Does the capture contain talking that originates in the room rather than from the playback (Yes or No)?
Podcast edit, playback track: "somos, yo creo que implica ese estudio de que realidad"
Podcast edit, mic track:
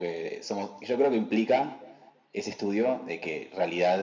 No